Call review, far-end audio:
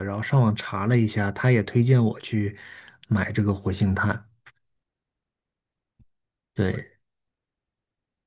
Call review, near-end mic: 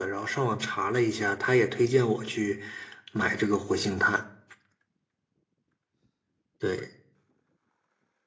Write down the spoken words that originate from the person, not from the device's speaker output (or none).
none